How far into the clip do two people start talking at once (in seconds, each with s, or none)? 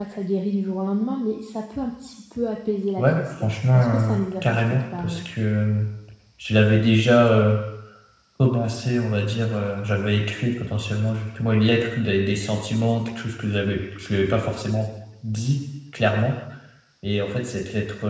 3.0 s